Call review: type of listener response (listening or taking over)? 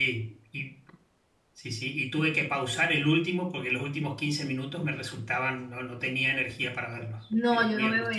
taking over